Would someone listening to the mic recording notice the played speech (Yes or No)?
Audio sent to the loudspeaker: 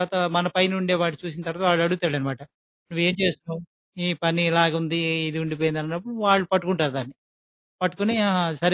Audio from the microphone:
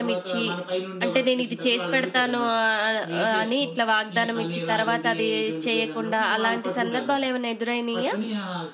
Yes